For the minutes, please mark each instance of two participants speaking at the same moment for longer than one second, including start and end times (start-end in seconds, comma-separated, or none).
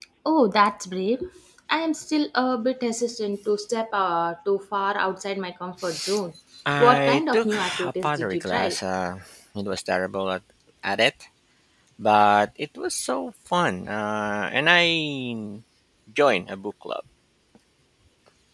7.0-8.8